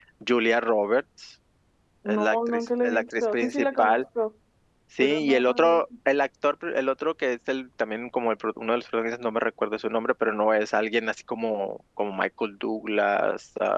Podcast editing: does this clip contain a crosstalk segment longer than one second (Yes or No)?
Yes